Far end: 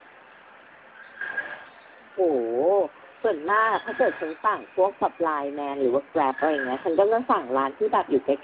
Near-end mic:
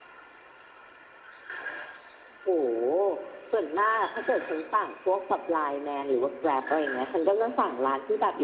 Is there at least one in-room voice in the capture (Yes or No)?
No